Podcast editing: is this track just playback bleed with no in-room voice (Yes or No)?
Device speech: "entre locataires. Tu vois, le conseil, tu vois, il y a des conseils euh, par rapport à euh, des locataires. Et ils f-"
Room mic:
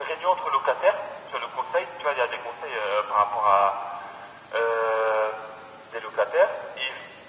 Yes